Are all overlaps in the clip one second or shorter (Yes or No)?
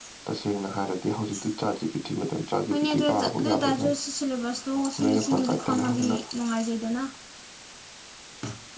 No